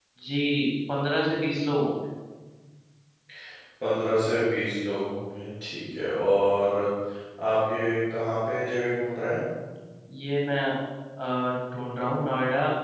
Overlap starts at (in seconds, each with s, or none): none